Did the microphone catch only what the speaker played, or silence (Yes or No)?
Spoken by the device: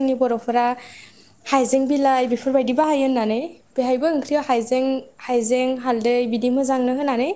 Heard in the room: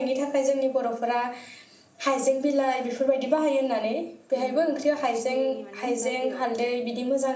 No